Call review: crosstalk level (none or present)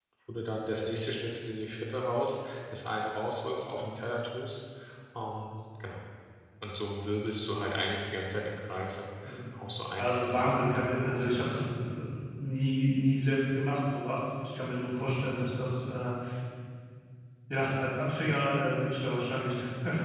present